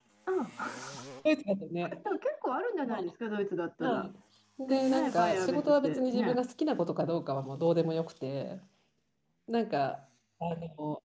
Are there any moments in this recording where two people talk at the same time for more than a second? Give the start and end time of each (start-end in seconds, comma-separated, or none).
4.7-6.4